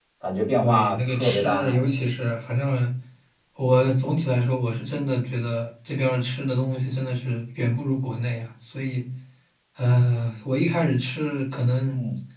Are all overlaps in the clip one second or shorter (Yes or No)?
No